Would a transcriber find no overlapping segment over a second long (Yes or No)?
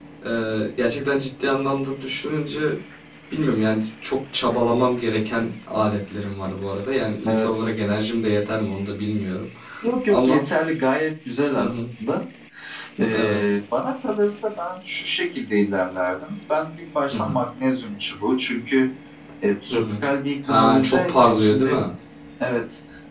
No